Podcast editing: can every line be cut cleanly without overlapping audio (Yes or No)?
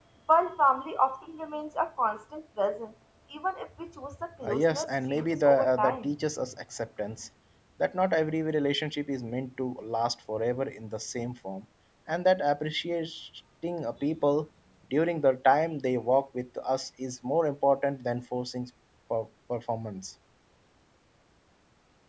No